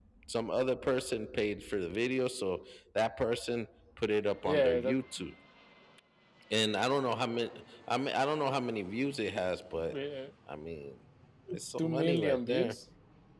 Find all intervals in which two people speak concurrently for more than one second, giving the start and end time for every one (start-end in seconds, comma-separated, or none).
11.5-12.8